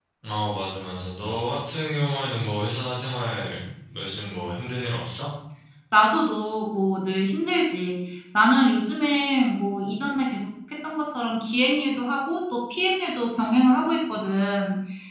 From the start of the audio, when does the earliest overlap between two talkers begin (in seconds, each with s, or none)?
none